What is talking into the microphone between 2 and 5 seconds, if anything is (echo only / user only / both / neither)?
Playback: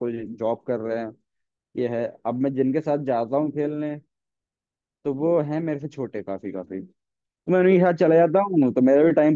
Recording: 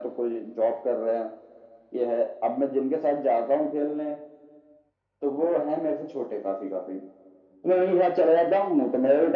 echo only